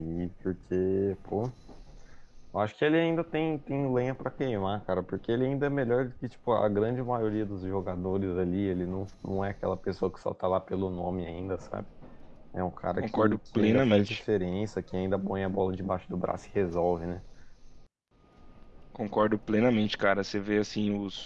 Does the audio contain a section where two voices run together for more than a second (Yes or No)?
Yes